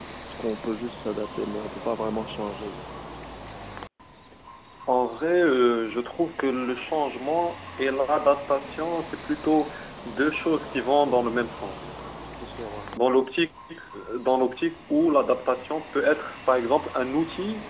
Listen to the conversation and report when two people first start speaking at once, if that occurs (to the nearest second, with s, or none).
none